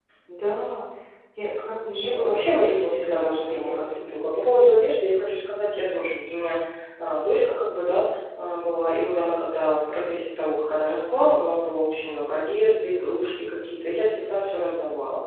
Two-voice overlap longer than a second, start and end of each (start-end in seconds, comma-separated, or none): 1.9-4.1